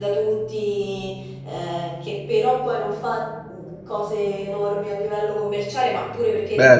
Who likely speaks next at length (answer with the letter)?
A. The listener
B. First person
A